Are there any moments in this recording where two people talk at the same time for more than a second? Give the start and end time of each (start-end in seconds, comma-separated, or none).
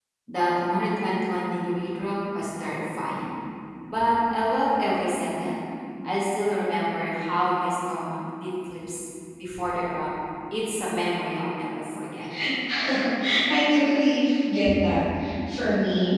none